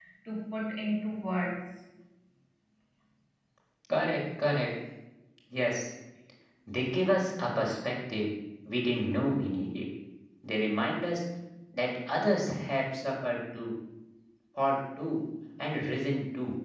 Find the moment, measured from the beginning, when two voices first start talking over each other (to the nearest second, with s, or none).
none